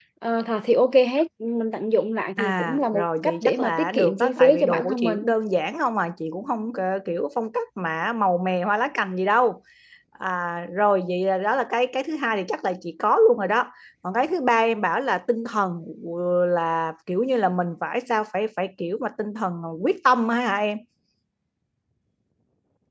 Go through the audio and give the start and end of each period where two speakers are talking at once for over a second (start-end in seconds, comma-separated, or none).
2.4-5.2